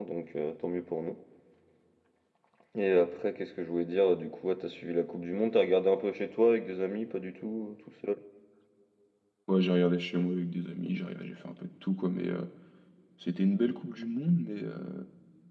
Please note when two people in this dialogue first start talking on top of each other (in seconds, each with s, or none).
none